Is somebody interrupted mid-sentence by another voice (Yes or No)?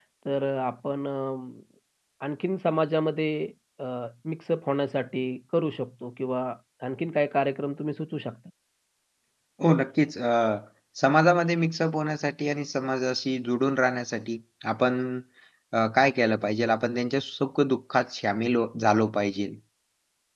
No